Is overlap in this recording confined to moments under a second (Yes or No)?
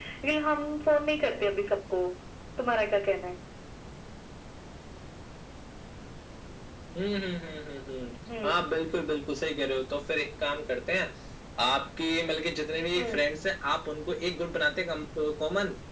Yes